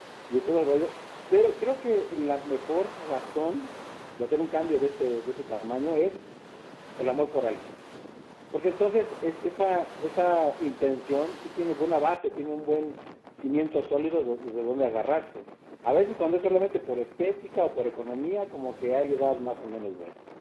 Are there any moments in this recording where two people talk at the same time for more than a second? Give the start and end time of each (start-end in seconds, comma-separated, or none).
none